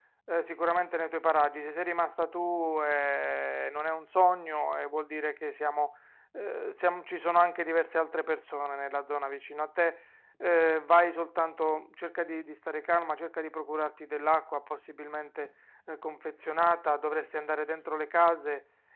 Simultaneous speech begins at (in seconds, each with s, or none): none